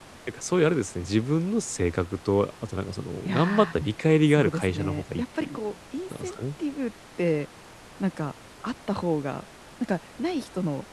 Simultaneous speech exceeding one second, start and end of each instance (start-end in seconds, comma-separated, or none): 4.3-5.6